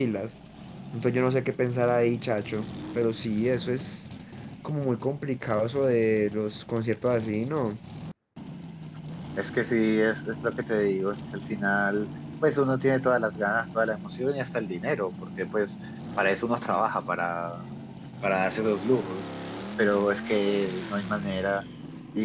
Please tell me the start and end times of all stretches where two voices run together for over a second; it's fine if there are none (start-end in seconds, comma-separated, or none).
none